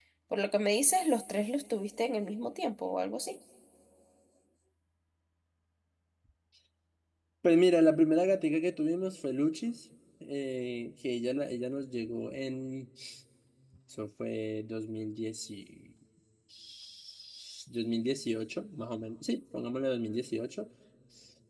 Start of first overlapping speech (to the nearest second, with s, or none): none